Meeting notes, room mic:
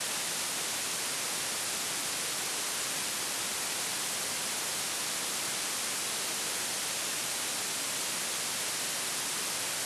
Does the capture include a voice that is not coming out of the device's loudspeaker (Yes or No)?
No